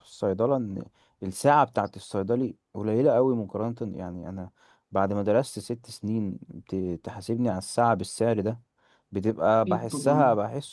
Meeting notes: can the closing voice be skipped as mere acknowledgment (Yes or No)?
Yes